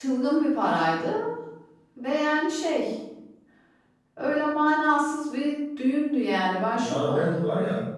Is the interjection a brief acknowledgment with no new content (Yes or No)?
No